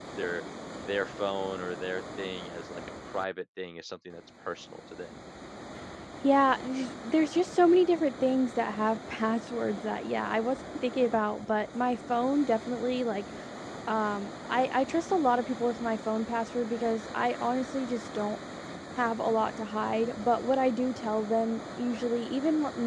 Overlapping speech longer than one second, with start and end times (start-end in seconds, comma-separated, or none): none